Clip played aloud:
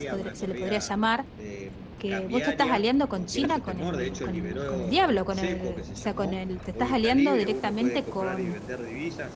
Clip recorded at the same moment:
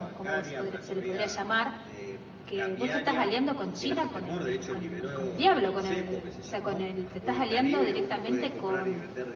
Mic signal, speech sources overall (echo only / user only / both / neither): echo only